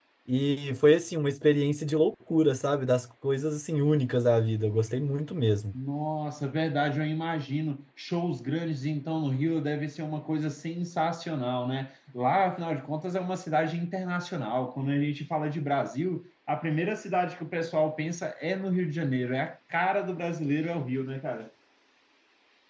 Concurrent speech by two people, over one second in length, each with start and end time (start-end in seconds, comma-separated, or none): none